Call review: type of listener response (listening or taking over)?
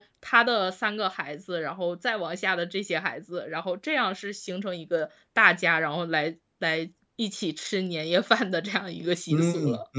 taking over